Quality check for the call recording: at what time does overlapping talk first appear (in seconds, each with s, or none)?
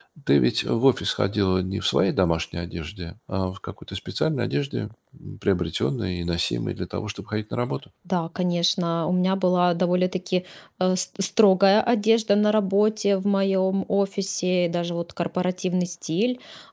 none